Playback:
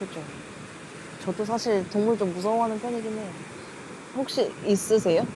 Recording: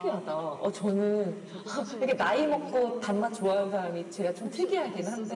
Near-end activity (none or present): present